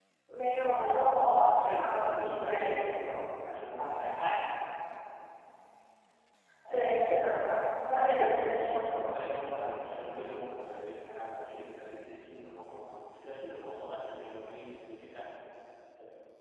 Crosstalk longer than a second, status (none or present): present